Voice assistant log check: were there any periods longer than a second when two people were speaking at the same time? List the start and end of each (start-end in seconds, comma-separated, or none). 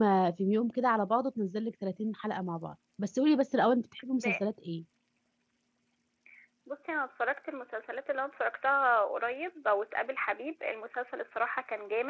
none